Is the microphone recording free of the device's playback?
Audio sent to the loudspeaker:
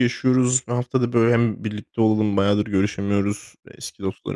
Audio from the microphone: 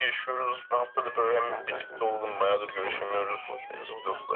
No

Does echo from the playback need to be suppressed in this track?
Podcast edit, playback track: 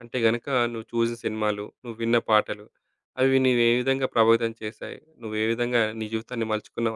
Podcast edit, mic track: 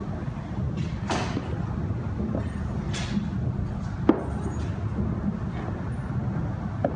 No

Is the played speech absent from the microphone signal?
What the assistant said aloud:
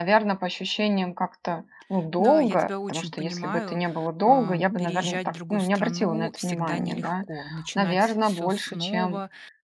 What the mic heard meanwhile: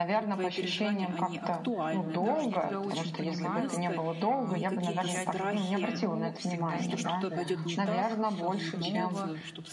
No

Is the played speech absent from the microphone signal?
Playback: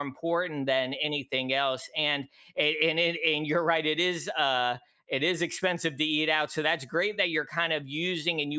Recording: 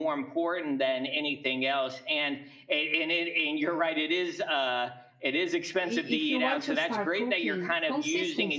No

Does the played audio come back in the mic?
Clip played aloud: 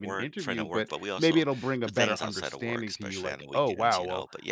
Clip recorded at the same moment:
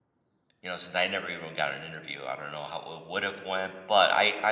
No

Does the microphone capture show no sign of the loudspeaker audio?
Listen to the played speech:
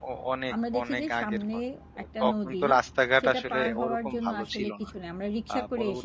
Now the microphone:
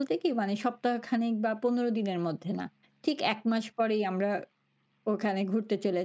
Yes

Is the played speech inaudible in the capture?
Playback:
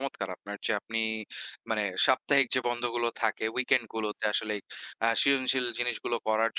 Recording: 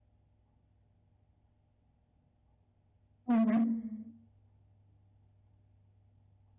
Yes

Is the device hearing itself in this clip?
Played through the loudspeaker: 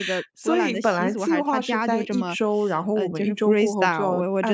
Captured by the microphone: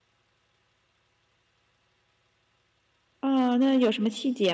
No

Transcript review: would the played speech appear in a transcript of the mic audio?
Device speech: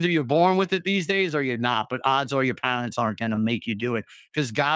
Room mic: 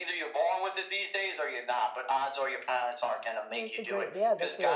Yes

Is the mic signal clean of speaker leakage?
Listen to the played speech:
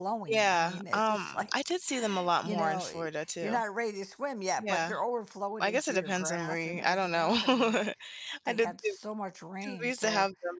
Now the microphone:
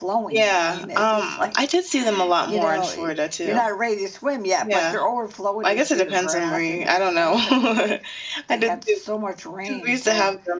No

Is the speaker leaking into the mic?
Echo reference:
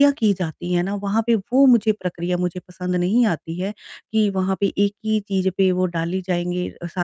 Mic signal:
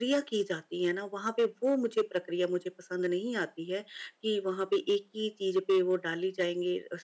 Yes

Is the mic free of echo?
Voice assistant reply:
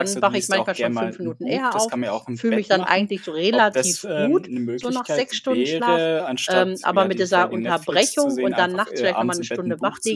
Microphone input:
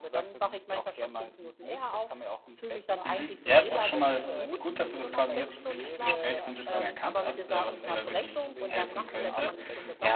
No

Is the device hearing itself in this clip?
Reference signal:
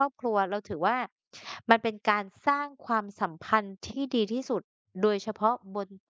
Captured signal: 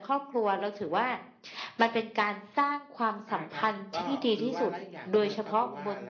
Yes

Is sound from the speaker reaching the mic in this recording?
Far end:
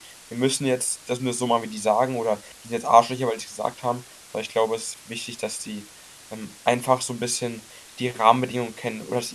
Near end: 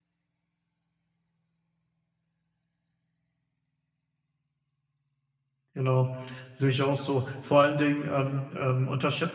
No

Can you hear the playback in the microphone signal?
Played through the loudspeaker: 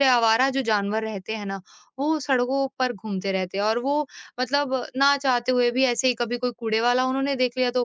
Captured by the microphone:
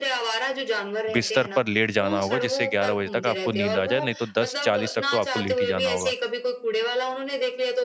Yes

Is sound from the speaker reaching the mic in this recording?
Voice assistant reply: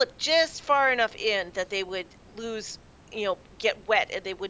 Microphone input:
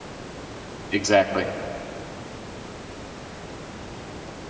No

